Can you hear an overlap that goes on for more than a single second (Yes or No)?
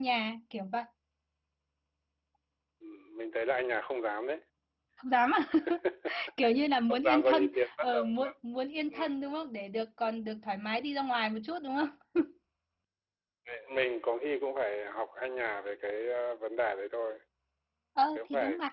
Yes